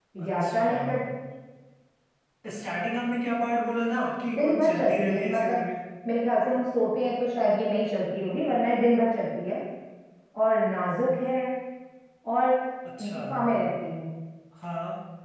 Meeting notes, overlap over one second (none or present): present